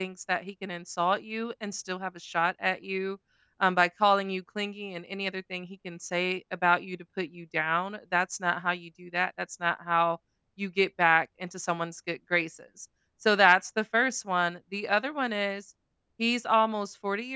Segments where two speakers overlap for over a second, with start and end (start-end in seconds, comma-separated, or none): none